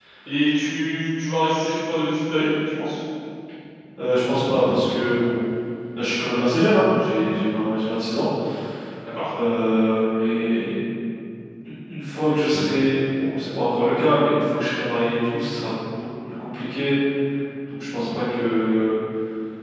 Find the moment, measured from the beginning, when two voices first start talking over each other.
none

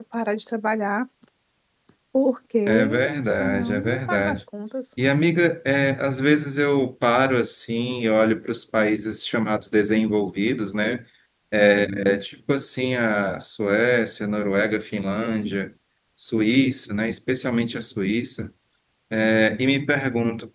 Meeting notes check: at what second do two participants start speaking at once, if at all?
2.7 s

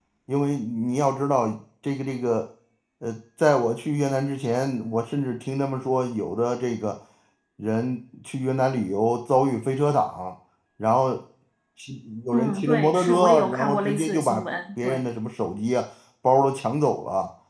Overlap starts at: 12.3 s

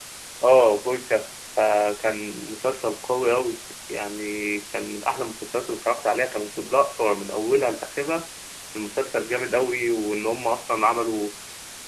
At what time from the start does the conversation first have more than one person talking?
none

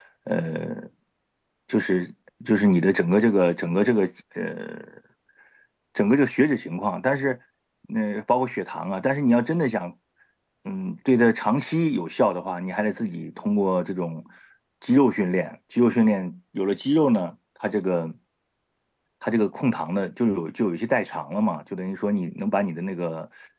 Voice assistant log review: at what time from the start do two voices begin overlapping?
none

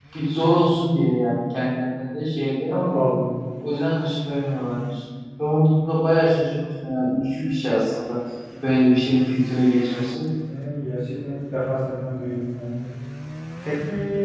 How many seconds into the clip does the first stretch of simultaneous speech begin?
none

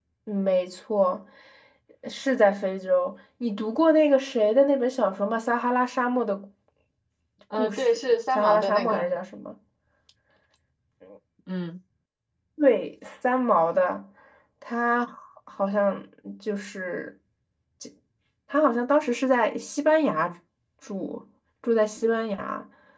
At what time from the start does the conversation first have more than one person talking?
7.5 s

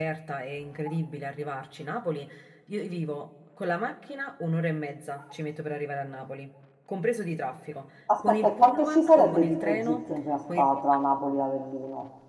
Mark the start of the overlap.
8.1 s

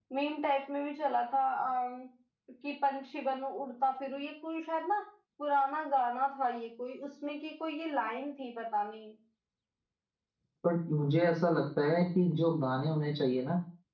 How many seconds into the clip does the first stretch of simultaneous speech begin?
none

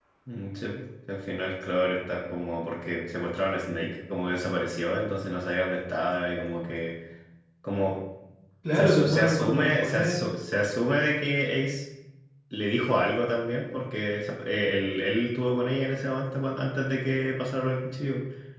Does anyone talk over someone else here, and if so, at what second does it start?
8.7 s

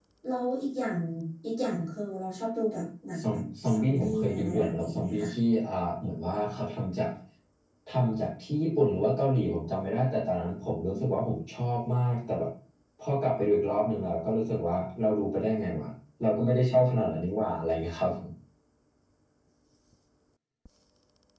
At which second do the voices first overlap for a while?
3.2 s

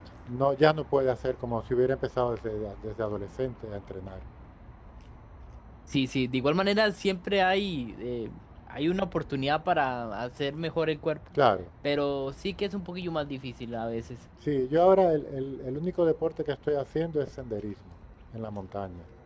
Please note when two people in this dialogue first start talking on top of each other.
none

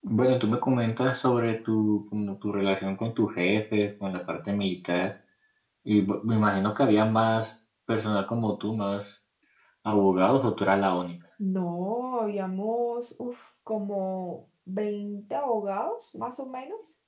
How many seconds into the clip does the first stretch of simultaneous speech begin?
none

